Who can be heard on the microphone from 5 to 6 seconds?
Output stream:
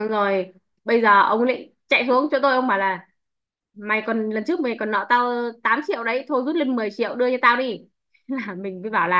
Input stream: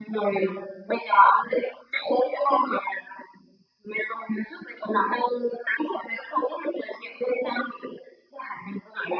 echo only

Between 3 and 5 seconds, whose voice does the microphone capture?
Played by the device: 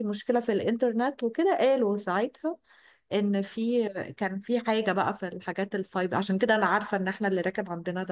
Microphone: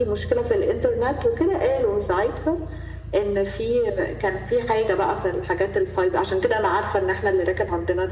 echo only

